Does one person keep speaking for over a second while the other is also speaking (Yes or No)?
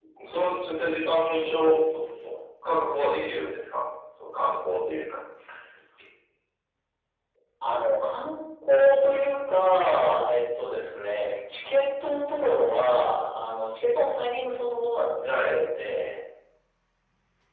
No